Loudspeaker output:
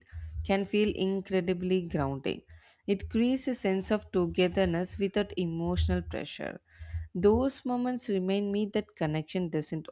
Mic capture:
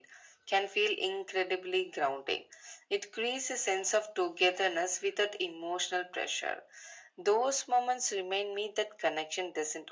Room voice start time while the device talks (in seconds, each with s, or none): none